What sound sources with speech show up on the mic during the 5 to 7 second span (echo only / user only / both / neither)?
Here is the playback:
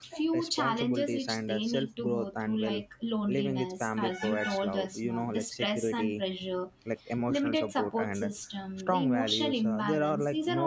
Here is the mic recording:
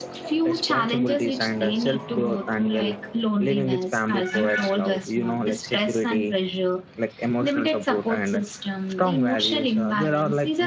echo only